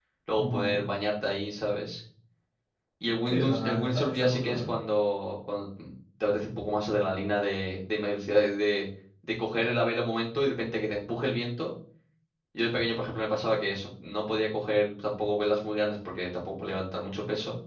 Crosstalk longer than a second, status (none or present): present